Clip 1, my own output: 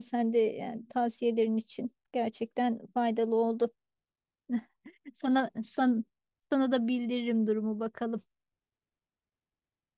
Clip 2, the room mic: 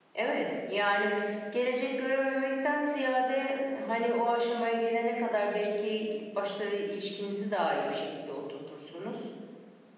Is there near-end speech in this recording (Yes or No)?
Yes